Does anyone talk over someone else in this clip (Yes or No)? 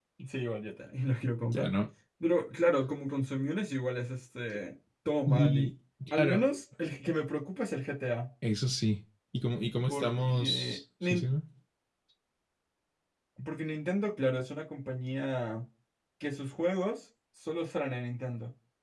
Yes